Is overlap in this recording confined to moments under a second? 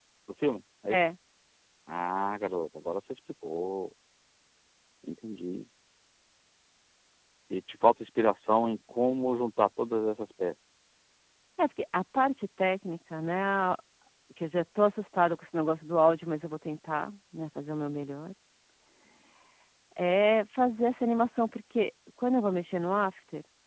Yes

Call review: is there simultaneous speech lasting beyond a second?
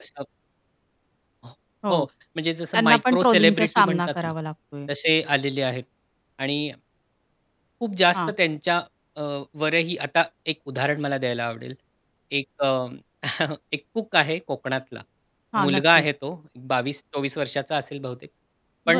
Yes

